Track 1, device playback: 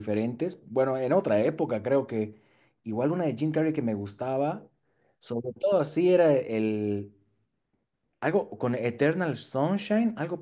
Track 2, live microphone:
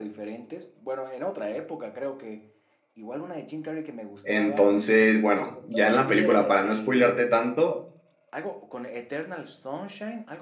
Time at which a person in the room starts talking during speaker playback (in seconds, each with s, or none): 4.2 s